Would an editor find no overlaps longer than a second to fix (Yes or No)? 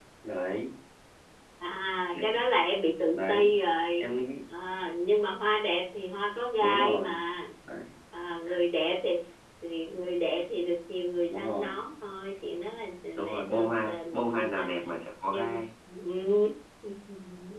No